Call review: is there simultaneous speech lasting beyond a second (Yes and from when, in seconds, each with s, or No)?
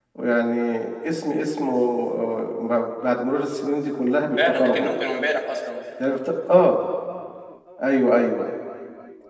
No